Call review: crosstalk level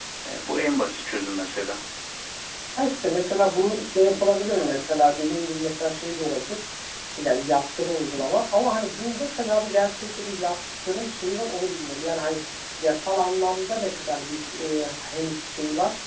none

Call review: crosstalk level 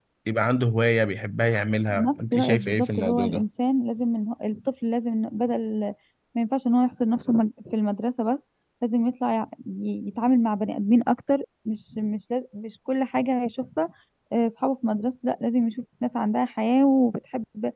present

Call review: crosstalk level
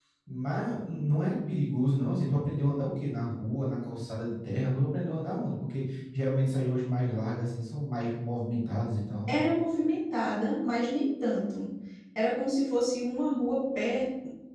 none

